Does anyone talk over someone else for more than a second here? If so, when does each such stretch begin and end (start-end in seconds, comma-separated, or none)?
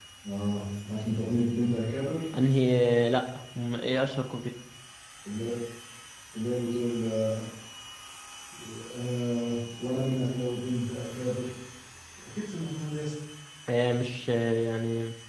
none